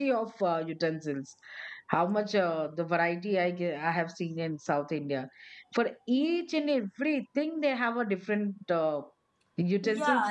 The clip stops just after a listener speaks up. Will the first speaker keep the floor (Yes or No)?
No